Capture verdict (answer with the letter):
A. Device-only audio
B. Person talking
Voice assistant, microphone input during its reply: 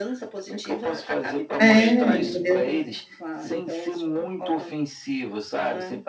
B